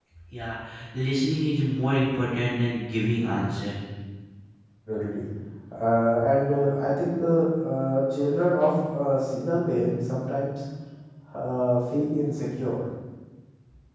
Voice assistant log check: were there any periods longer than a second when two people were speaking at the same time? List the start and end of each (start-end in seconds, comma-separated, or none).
none